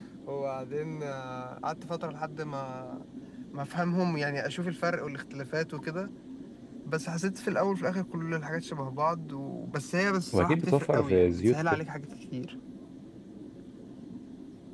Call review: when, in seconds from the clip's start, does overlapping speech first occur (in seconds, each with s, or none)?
10.3 s